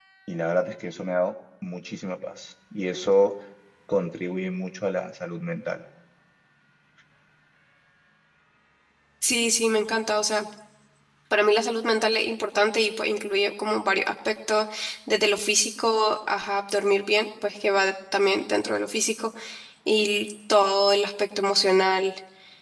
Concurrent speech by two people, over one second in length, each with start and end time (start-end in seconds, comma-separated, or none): none